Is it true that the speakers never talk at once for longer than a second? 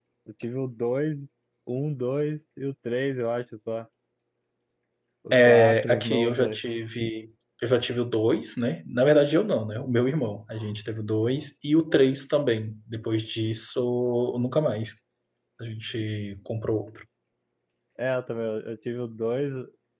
No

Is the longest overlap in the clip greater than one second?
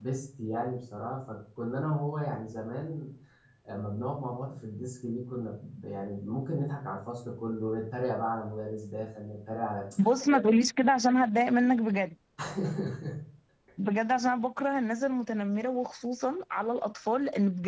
No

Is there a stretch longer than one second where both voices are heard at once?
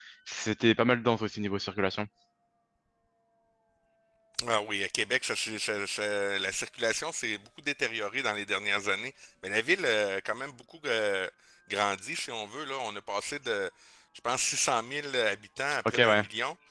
No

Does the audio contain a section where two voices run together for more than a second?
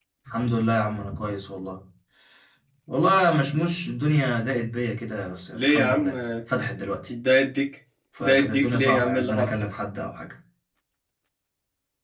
Yes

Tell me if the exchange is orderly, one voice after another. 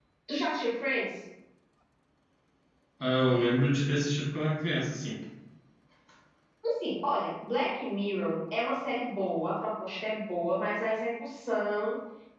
Yes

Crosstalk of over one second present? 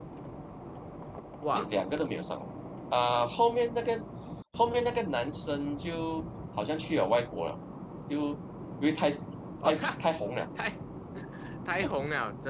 No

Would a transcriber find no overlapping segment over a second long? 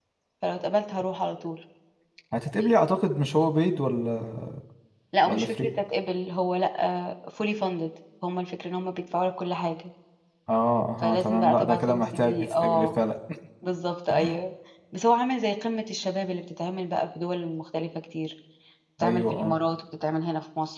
No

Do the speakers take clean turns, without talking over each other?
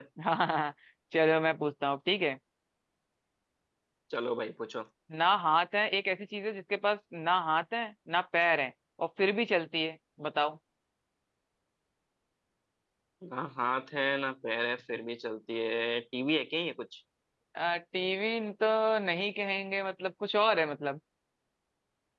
Yes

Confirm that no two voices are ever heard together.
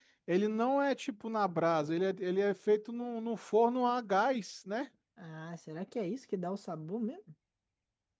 Yes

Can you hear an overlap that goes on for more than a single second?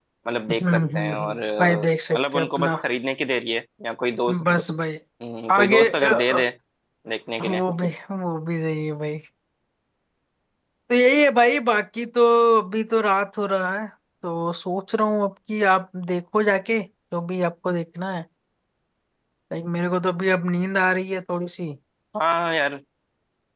Yes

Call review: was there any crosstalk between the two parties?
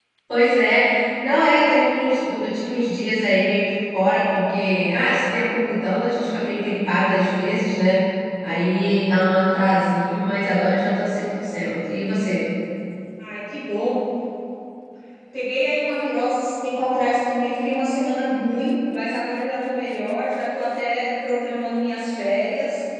No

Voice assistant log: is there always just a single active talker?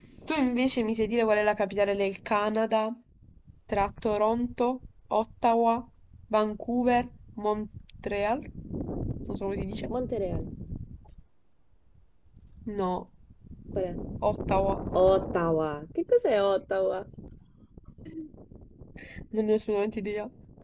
Yes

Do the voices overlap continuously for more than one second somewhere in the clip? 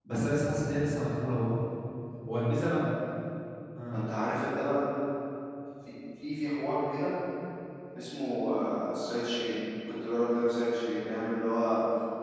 No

